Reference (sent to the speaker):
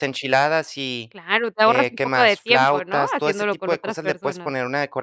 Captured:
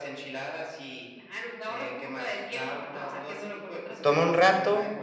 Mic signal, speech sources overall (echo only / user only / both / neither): both